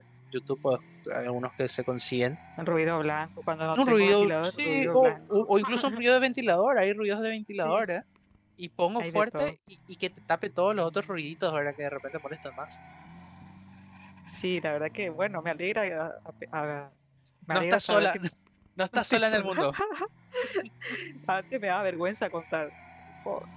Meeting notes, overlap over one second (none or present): present